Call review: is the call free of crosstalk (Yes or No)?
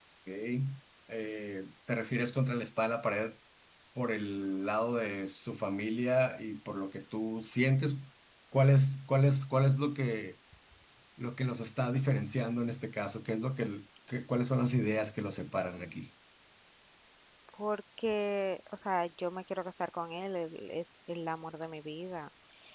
Yes